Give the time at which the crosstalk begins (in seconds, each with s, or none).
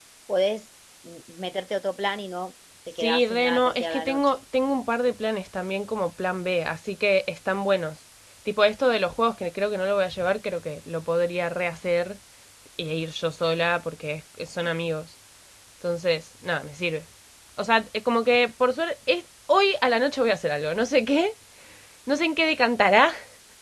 3.0 s